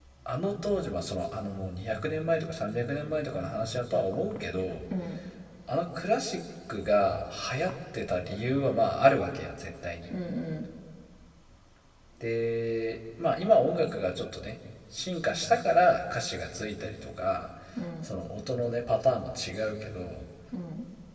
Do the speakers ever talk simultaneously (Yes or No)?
No